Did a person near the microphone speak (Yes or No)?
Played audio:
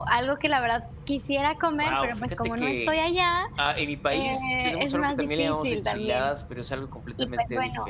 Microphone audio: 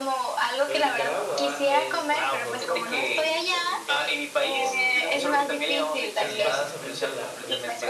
Yes